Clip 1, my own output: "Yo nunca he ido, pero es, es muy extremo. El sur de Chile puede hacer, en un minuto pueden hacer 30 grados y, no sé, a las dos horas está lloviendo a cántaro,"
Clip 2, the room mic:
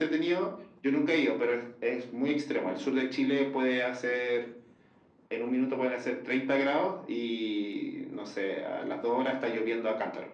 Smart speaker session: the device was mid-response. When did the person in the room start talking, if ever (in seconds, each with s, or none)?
none